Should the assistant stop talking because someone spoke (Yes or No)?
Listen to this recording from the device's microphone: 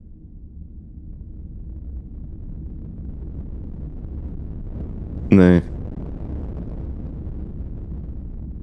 Yes